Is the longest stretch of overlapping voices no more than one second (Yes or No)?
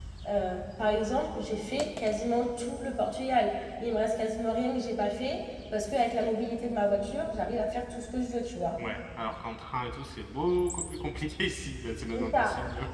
Yes